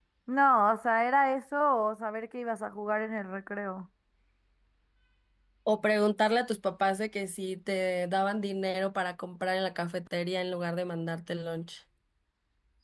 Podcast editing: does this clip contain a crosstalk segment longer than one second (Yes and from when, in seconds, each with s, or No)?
No